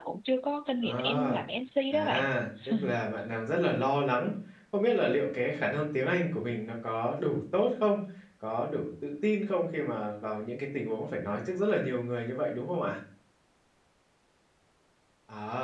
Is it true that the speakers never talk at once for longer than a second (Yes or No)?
Yes